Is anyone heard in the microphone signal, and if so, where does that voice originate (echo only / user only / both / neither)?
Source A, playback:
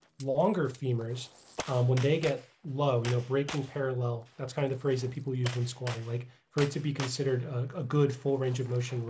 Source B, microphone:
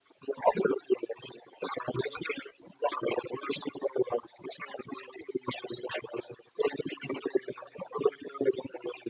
echo only